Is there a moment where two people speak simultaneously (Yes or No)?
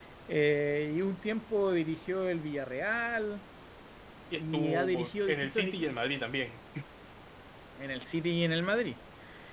Yes